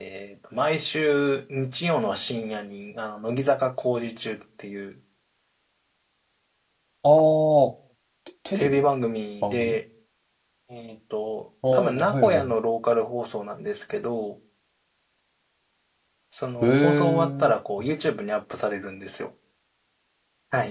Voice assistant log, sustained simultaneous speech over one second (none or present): present